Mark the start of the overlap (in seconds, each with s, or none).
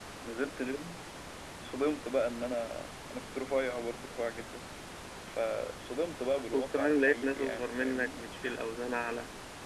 6.5 s